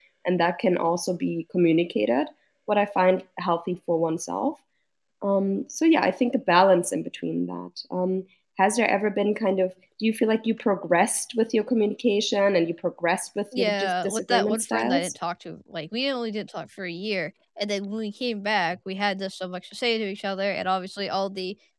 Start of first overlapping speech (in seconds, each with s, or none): 13.5 s